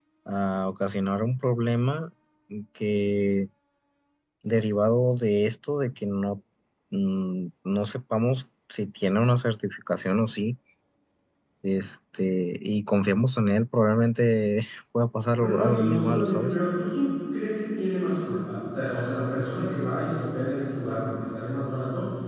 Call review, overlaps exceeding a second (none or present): present